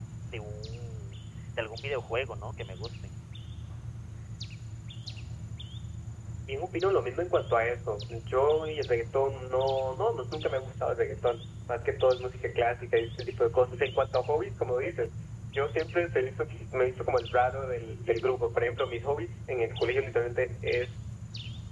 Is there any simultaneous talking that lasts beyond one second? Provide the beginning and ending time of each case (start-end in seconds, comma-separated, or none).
none